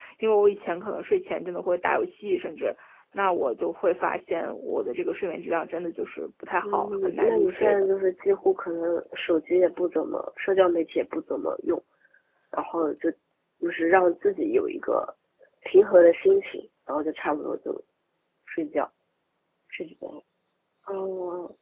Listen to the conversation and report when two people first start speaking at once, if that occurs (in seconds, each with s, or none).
6.6 s